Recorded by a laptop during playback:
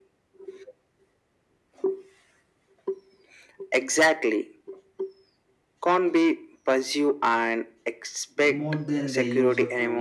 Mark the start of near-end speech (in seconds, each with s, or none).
8.3 s